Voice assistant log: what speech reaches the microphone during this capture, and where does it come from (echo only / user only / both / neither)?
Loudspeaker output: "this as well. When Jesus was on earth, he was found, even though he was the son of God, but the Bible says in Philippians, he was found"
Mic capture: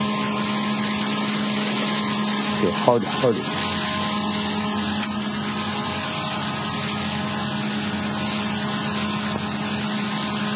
user only